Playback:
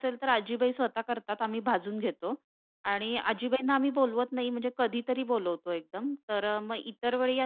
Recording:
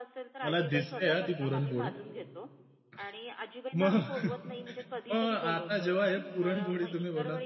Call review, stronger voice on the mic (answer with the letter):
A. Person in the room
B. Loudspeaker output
A